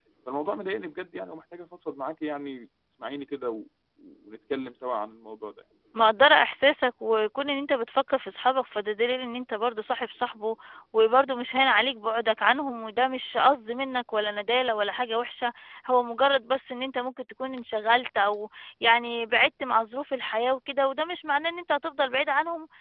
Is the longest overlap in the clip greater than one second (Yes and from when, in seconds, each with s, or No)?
No